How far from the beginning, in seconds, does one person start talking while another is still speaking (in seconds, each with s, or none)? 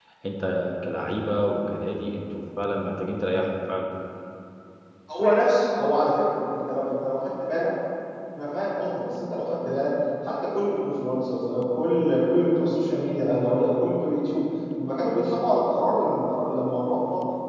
none